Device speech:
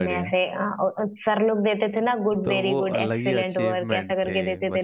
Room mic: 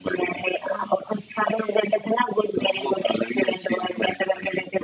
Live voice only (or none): none